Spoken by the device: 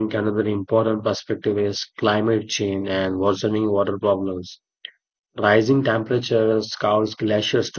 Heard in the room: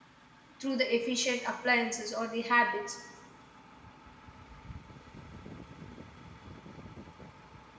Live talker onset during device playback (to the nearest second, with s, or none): 1 s